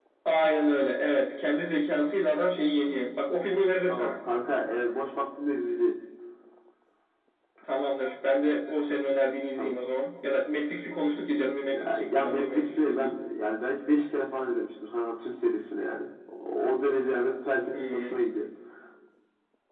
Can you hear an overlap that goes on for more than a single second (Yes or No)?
Yes